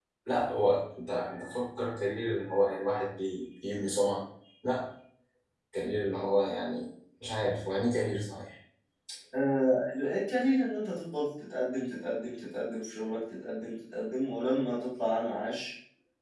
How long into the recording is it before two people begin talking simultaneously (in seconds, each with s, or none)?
none